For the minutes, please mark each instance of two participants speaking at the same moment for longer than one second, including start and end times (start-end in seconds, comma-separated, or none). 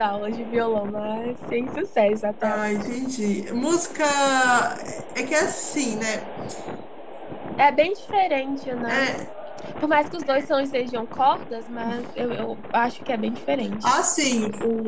none